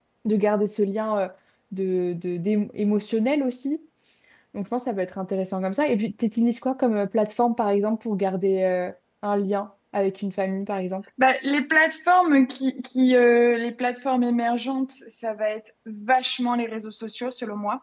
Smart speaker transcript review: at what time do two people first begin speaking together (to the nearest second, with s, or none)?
none